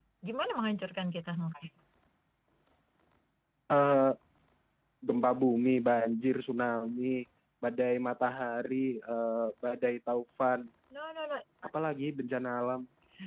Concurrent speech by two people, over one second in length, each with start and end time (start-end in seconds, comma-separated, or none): none